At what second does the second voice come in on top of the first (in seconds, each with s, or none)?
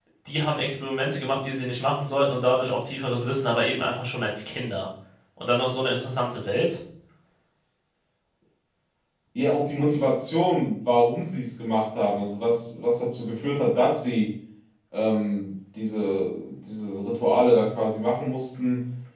none